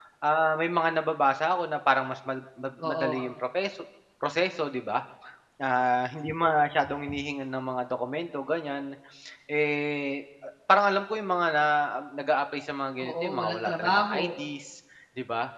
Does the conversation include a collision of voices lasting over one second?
Yes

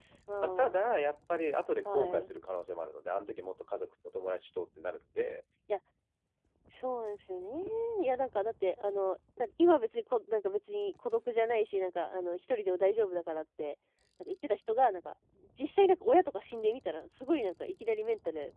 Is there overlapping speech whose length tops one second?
No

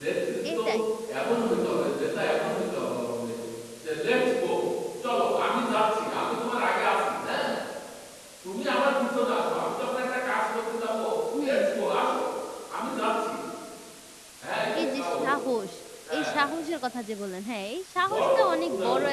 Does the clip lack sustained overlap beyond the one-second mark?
Yes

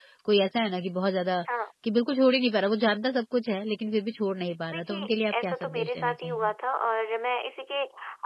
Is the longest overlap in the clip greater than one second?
Yes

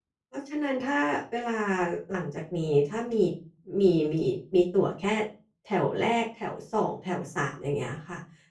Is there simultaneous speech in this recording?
No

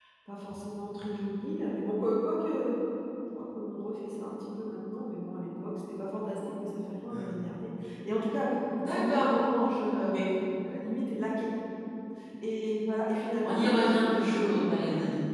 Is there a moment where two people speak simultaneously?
Yes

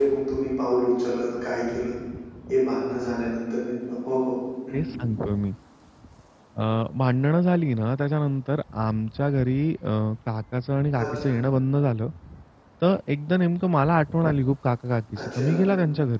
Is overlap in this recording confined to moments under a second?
Yes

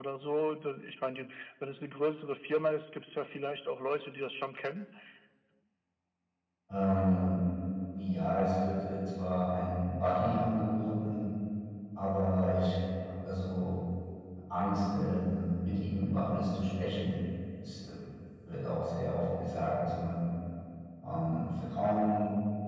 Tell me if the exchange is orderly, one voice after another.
Yes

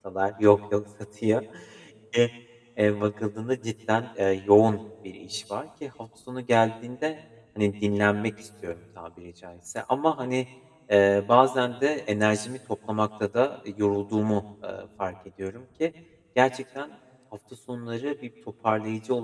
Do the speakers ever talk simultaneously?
No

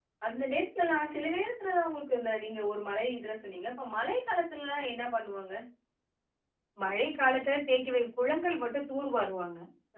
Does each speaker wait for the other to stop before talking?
Yes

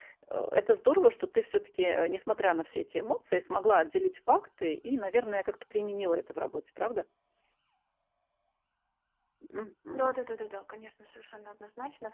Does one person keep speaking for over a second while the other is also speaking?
No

